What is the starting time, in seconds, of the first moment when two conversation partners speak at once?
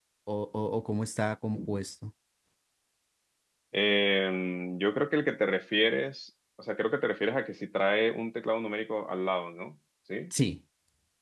none

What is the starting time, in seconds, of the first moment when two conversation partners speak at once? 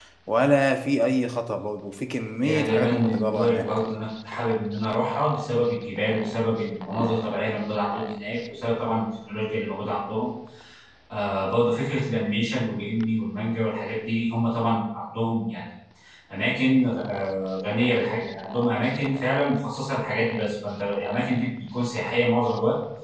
2.4 s

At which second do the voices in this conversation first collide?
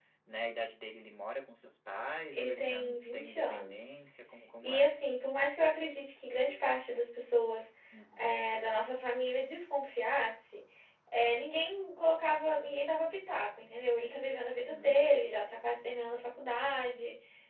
2.3 s

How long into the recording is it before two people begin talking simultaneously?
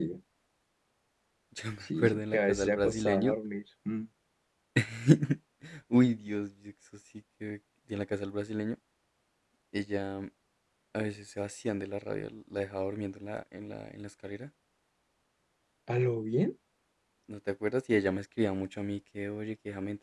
1.8 s

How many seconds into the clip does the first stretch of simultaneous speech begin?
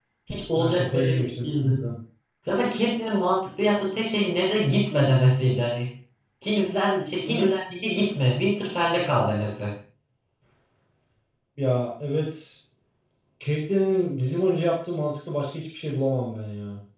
0.5 s

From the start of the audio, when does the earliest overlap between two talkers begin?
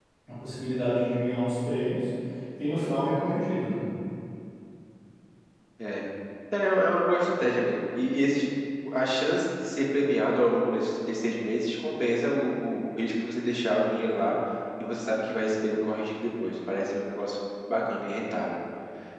none

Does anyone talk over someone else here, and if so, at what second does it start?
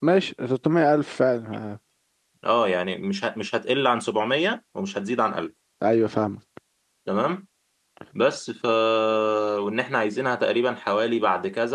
none

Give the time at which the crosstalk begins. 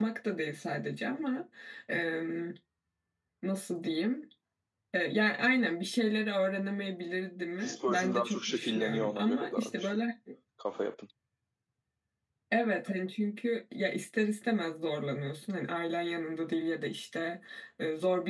7.6 s

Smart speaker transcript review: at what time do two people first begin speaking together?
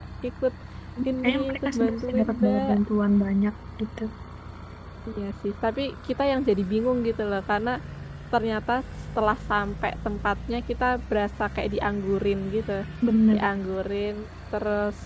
1.2 s

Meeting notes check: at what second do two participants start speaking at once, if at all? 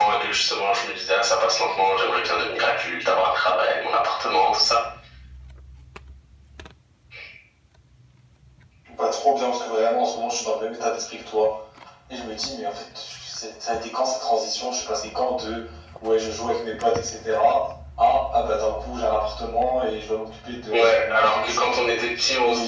20.7 s

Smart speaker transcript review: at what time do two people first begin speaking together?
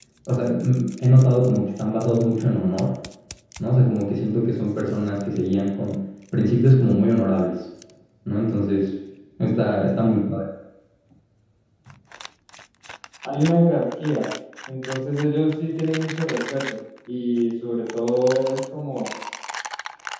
none

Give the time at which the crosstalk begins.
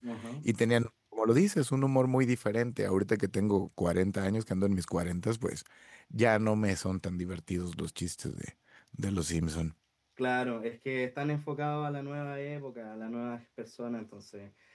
none

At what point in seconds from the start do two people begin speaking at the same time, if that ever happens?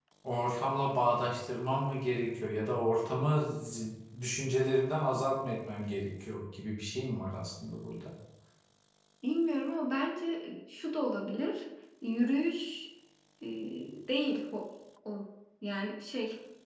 none

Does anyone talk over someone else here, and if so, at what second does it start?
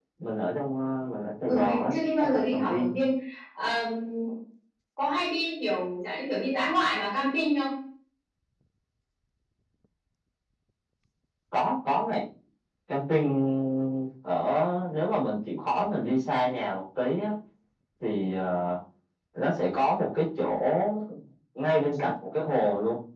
1.4 s

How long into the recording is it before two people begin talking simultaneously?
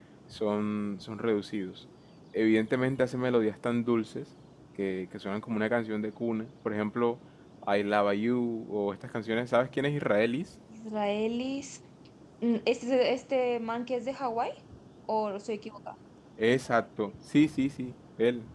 none

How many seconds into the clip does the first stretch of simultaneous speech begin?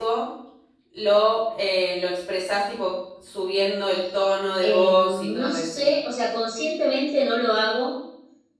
4.6 s

